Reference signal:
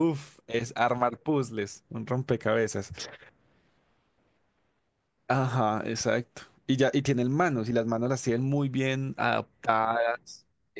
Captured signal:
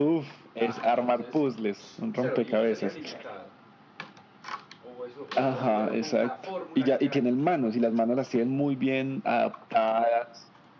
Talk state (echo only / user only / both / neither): both